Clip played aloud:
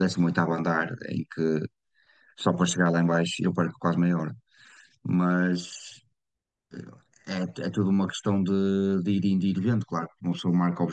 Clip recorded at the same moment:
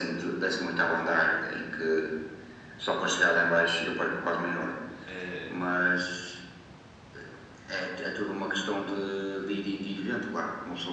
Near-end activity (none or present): present